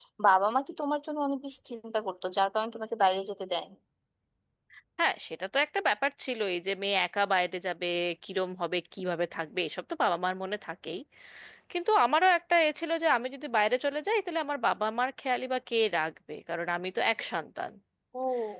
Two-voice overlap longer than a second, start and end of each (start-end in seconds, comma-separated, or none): none